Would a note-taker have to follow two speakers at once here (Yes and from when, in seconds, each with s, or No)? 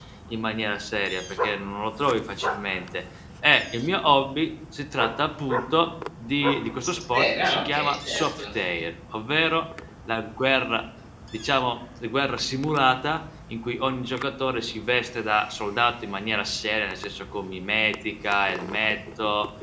Yes, from 6.9 s